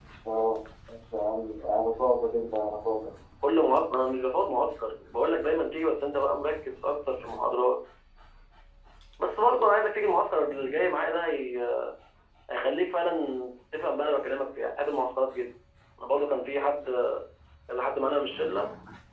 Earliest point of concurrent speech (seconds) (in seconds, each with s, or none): none